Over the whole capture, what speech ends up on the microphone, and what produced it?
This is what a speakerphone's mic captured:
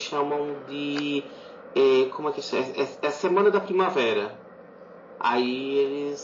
echo only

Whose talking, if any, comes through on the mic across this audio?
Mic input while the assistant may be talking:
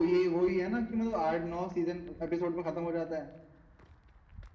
echo only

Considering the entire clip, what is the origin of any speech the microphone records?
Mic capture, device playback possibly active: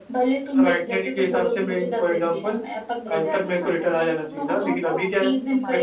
both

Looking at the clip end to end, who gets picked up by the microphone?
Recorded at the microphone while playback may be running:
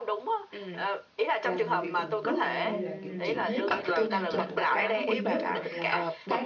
both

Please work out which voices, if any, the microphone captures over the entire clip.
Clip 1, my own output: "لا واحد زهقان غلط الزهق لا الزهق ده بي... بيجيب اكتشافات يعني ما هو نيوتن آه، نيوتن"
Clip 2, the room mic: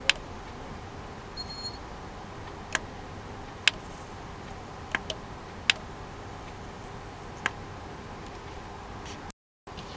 neither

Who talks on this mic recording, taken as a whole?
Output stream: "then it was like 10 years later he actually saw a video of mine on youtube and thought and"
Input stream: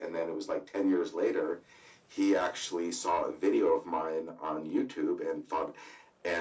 echo only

